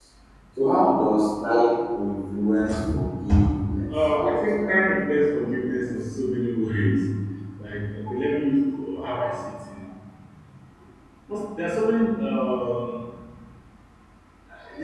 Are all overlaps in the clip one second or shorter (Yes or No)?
No